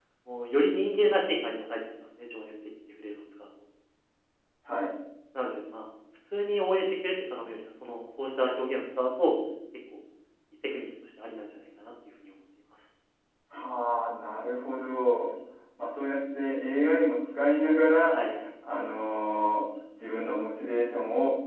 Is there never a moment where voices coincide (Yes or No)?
Yes